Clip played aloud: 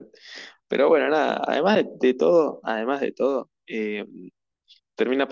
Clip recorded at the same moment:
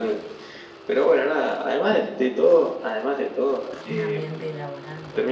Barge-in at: 3.8 s

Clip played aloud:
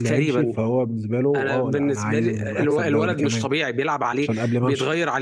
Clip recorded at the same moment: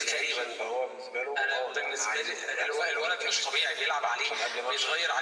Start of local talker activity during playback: none

